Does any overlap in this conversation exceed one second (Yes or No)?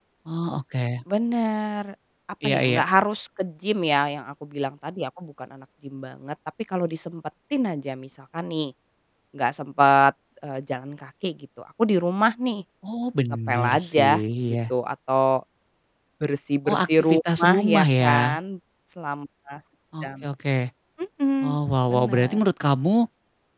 Yes